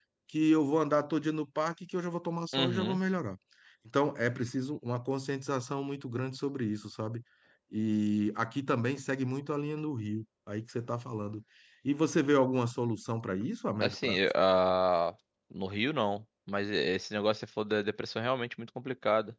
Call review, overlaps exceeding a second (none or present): none